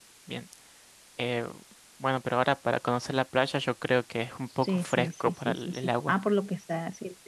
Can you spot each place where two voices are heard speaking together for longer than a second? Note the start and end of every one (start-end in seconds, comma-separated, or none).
4.6-6.2